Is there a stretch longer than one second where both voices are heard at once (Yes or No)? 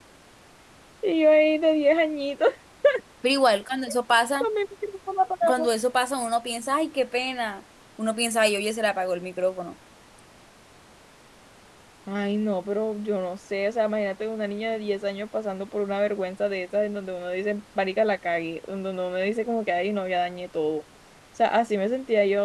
No